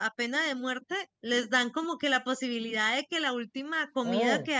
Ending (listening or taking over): listening